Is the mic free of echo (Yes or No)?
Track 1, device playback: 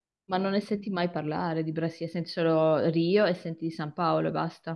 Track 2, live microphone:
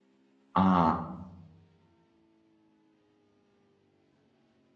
Yes